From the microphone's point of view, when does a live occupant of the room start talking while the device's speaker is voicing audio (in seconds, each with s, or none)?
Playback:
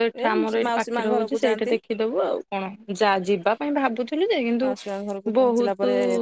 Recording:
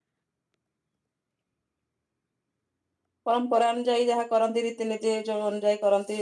3.3 s